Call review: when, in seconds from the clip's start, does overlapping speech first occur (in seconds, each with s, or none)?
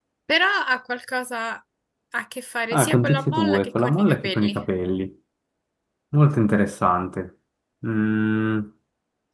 2.7 s